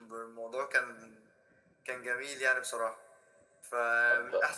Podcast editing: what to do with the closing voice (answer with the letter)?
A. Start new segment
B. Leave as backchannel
B